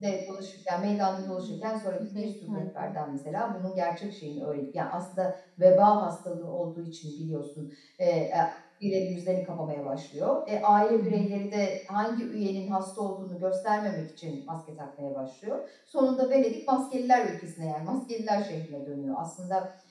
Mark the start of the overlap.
1.2 s

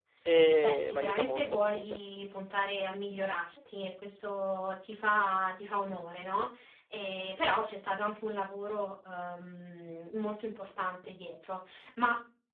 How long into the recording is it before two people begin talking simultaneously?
0.6 s

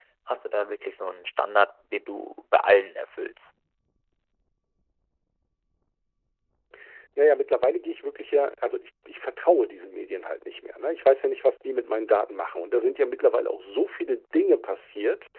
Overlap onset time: none

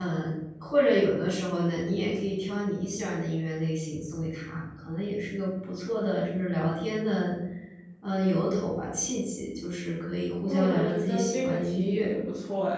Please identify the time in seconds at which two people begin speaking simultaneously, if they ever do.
10.4 s

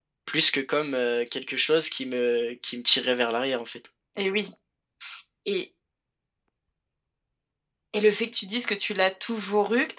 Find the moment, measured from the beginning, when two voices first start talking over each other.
none

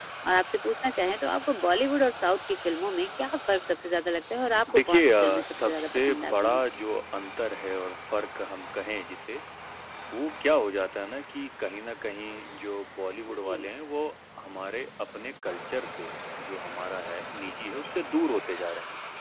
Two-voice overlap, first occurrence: 4.7 s

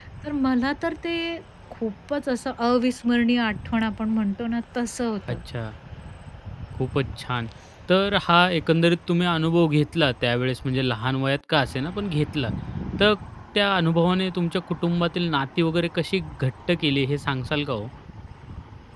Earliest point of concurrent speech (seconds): none

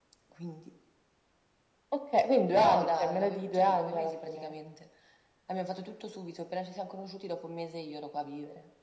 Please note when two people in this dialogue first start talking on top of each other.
2.5 s

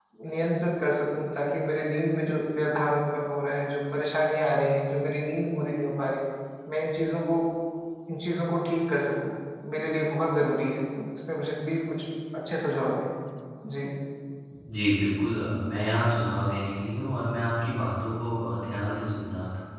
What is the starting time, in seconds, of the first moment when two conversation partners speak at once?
none

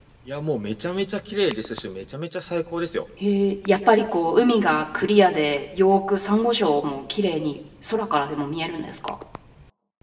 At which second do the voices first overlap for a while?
none

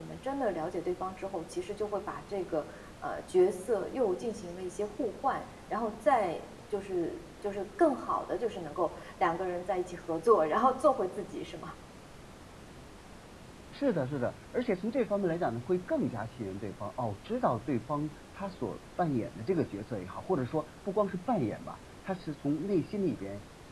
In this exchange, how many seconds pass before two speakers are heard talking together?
none

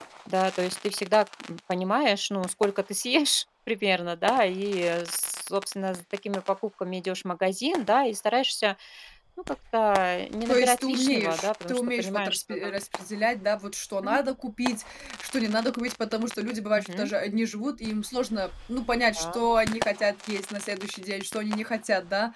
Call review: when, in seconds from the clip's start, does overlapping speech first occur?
10.5 s

